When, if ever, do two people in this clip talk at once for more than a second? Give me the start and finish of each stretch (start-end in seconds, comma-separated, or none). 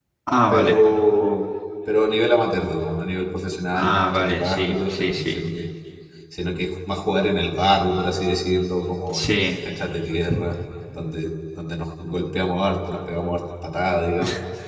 3.7-5.4